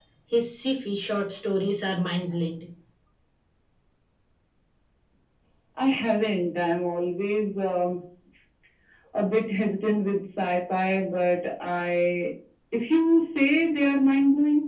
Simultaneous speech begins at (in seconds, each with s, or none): none